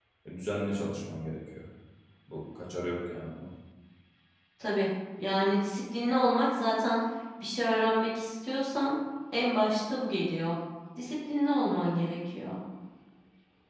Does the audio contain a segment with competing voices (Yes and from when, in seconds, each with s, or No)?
No